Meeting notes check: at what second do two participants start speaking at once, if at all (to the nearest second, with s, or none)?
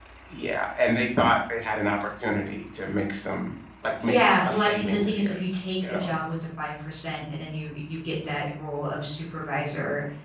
4 s